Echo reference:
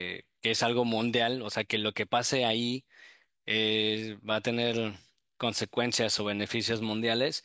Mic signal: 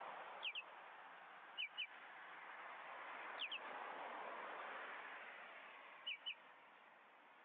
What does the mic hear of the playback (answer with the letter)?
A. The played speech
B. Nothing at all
B